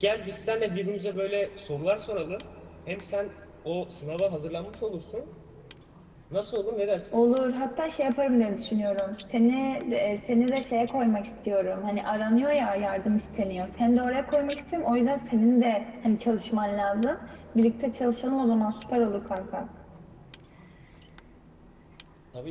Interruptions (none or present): none